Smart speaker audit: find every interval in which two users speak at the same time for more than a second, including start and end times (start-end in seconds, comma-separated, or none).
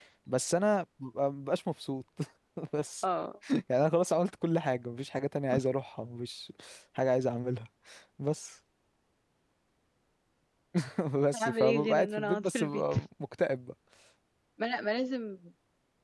11.3-12.9